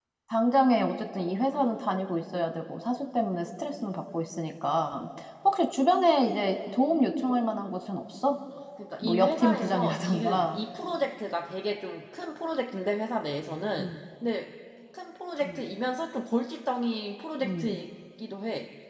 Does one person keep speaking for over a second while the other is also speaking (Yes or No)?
Yes